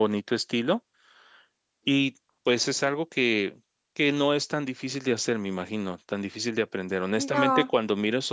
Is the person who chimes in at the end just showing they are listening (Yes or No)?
Yes